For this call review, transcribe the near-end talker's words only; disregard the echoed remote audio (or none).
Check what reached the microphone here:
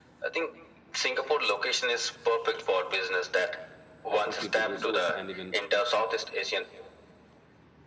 opportunity resource and even